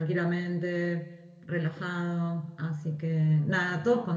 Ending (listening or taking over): listening